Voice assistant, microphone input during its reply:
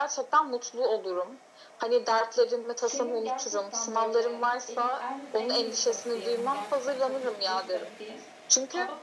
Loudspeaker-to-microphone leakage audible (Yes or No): Yes